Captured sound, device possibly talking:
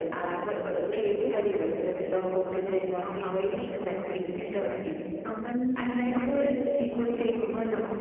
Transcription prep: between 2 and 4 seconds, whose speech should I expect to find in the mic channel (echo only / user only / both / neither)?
both